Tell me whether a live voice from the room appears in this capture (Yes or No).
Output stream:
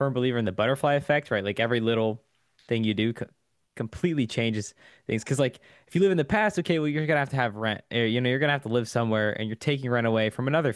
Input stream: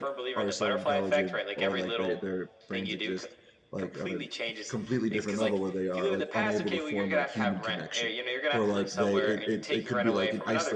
Yes